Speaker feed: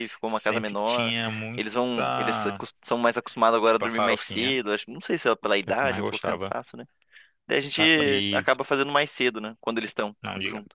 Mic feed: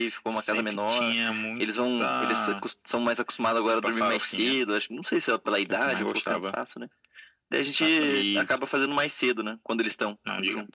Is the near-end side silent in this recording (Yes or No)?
Yes